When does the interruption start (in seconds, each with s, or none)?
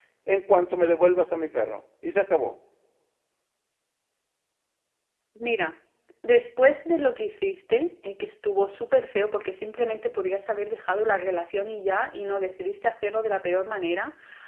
none